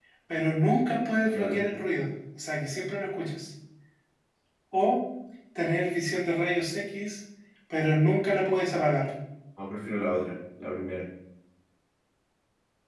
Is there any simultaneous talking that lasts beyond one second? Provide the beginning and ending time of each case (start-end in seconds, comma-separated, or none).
none